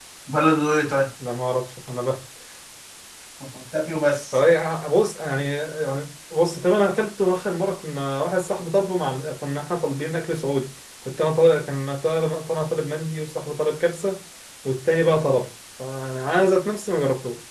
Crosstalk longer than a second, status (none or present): none